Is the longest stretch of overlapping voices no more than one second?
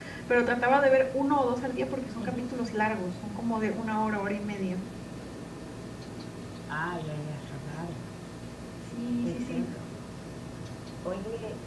Yes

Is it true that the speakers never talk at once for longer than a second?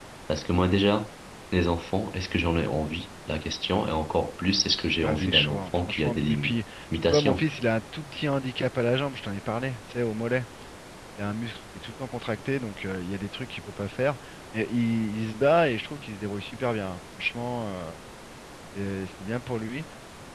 No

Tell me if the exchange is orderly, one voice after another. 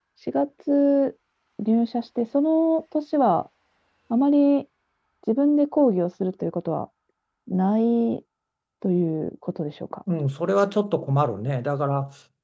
Yes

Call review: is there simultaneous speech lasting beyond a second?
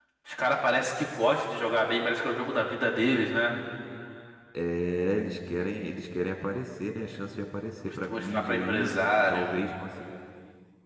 Yes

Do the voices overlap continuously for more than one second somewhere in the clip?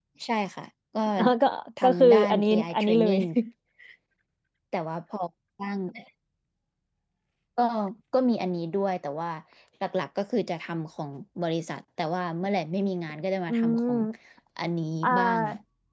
Yes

